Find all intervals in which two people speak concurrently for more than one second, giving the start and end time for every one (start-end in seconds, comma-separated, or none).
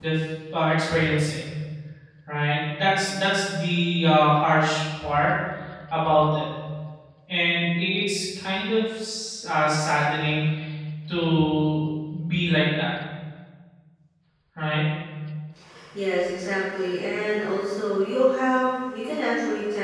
none